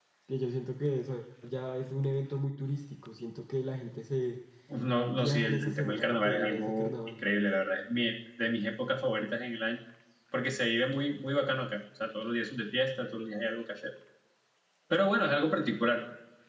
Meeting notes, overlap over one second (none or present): present